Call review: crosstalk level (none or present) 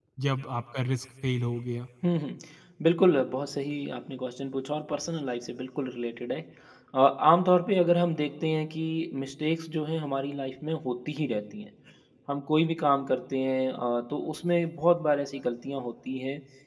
none